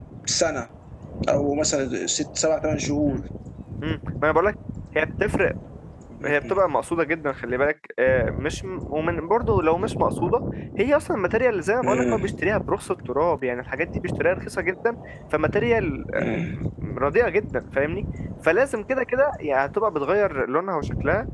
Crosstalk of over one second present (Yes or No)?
No